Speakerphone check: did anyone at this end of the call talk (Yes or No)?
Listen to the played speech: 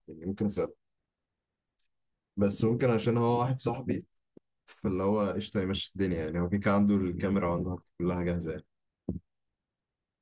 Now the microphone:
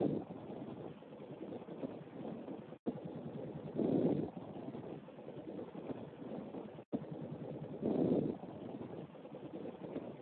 No